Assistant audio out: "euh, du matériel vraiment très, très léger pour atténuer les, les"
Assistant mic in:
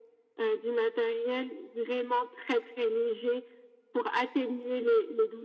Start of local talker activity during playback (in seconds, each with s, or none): none